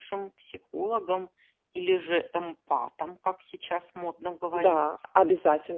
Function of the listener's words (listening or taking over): taking over